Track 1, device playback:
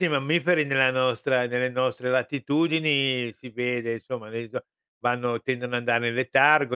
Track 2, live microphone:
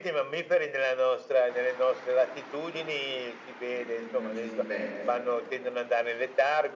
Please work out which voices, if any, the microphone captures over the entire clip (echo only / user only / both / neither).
both